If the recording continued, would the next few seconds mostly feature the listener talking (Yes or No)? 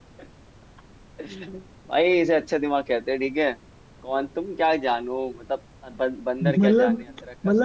Yes